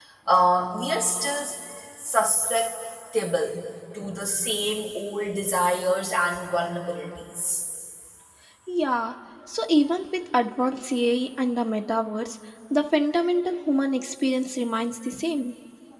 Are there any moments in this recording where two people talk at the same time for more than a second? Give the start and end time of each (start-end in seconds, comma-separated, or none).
none